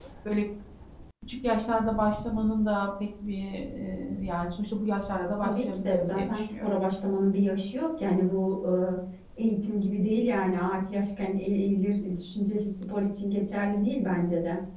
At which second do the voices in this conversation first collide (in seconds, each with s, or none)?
5.4 s